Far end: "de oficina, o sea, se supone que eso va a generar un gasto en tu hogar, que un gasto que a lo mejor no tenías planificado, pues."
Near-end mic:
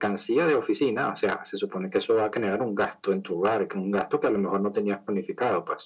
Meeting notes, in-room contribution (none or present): none